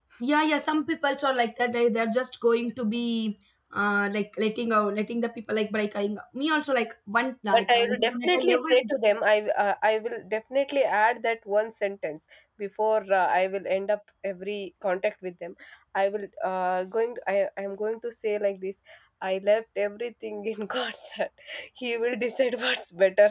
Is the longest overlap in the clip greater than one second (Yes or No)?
Yes